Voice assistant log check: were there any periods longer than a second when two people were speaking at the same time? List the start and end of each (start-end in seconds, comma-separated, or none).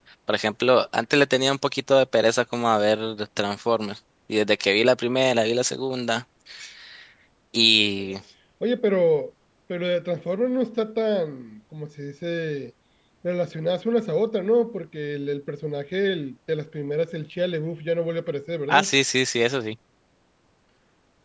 none